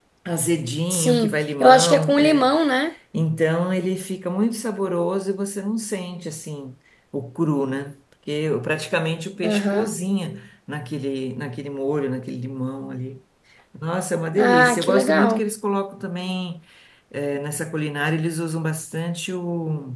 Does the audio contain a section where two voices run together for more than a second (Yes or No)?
Yes